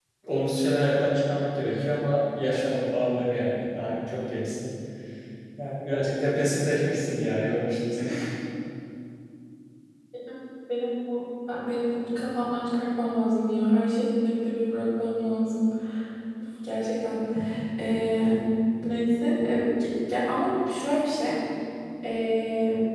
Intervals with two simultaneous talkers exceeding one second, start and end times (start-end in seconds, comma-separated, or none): none